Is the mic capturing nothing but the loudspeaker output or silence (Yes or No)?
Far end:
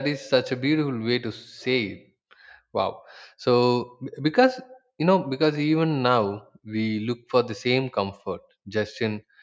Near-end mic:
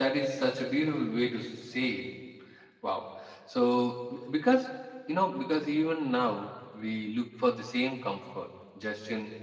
Yes